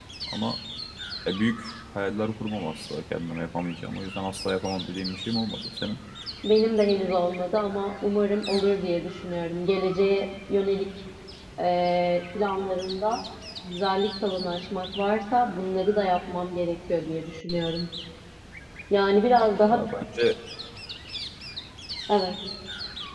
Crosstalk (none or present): none